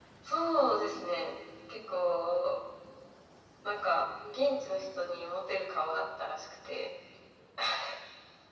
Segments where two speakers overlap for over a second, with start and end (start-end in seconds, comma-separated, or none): none